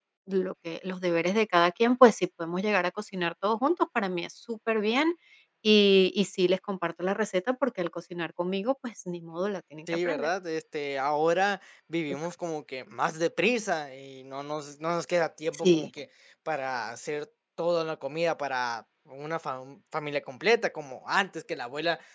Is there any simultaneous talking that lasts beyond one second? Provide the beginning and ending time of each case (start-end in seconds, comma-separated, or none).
none